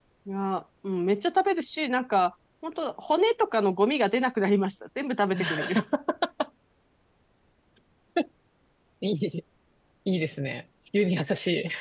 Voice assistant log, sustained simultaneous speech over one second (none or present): none